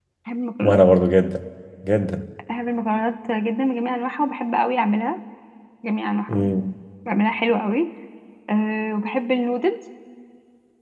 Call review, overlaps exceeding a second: none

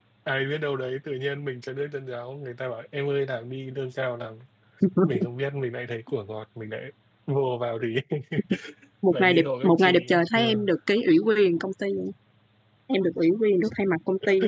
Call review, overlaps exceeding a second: present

